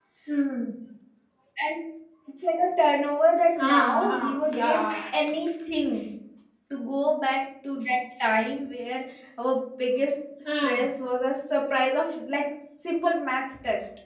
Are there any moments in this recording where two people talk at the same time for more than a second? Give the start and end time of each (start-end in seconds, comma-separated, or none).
3.6-4.8